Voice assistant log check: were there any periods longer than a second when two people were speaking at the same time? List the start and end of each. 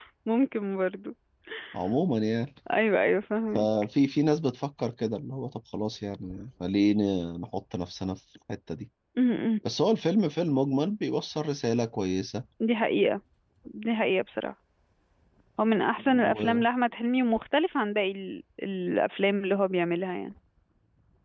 none

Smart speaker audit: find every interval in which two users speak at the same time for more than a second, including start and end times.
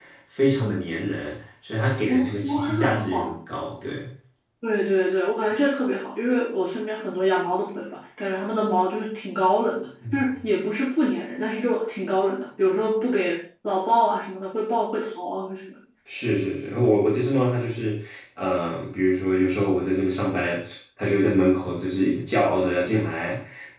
2.1-3.4

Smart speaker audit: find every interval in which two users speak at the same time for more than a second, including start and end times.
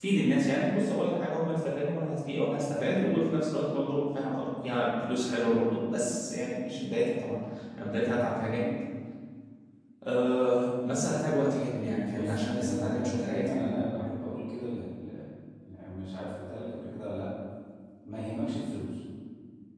11.8-13.8

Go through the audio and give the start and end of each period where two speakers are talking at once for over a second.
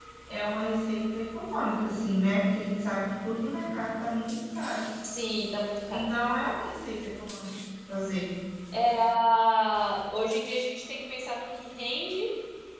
none

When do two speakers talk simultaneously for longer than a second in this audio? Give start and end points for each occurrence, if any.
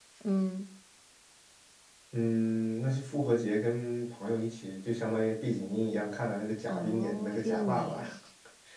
6.7-8.0

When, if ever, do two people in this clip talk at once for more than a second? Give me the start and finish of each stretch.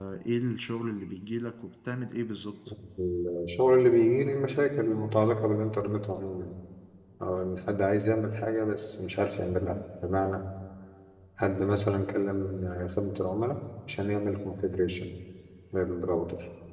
none

